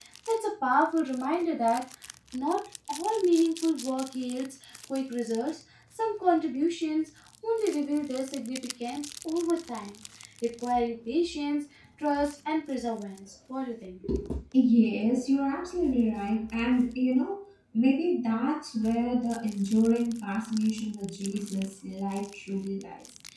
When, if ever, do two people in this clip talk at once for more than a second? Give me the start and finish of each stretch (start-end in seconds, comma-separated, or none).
none